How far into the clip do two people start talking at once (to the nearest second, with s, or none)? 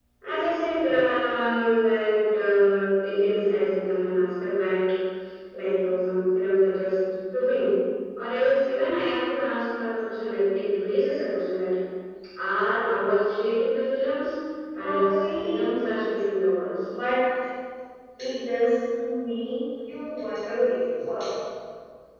15 s